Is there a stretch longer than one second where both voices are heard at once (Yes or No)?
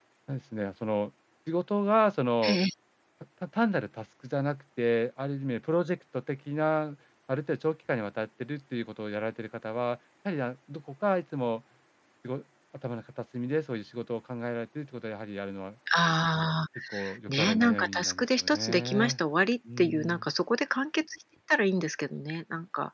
Yes